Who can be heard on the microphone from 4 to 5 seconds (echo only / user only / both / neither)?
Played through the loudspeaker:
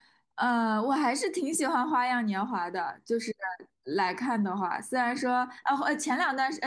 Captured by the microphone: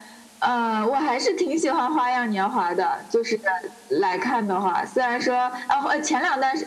echo only